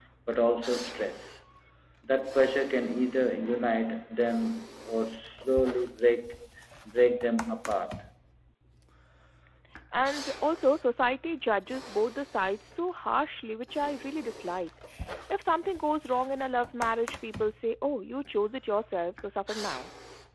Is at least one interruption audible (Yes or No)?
No